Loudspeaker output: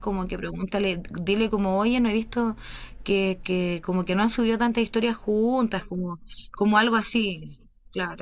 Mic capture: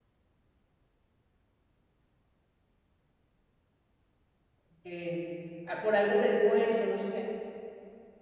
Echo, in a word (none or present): none